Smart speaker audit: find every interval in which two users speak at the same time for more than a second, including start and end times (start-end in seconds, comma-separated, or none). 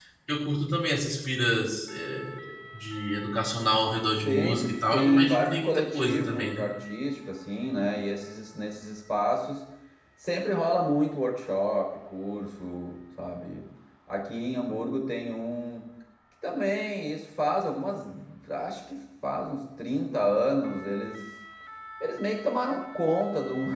4.2-6.7